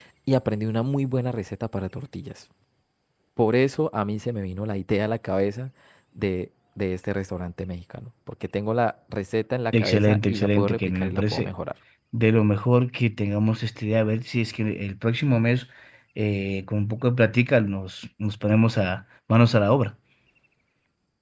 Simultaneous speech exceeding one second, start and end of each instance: 9.7-11.5

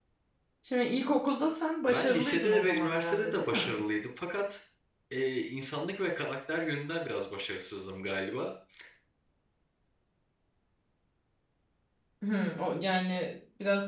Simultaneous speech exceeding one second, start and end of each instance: 1.9-3.7

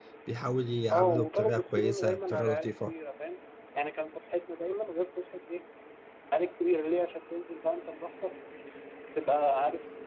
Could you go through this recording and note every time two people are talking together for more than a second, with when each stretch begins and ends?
0.9-2.9

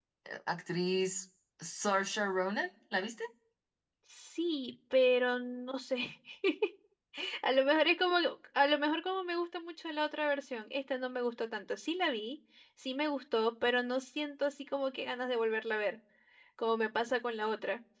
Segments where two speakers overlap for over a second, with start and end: none

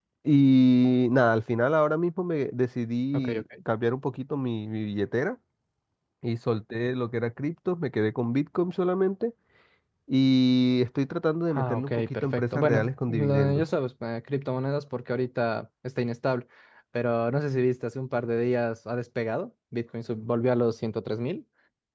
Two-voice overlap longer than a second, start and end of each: 11.5-13.6

